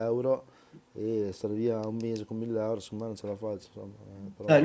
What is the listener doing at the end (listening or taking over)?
taking over